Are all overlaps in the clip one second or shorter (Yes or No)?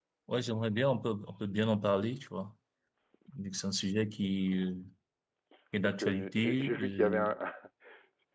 No